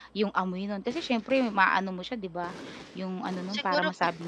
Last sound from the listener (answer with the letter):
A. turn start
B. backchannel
A